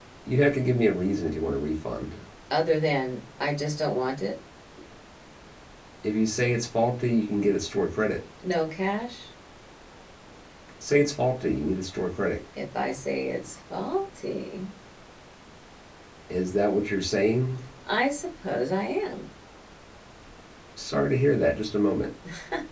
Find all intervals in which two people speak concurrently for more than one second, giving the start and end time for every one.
none

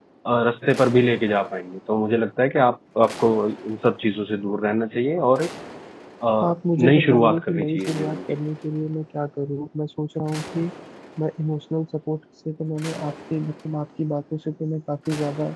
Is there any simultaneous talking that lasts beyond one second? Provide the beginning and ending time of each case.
6.4-8.2

